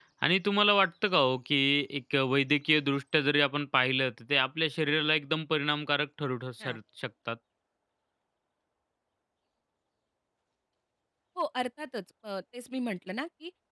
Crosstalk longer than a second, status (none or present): none